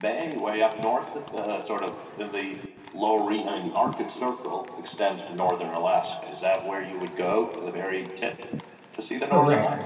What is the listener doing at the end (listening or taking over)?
taking over